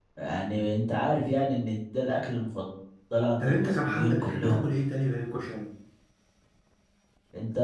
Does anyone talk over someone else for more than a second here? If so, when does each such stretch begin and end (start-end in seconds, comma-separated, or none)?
3.4-4.6